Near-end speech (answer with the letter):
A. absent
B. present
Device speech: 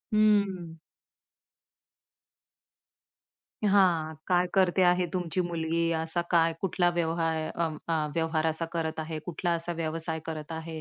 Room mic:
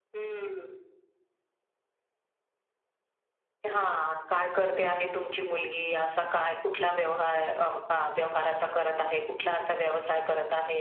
A